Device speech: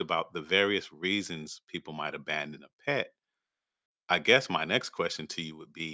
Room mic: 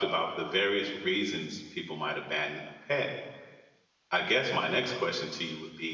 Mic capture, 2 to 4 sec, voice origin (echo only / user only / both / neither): echo only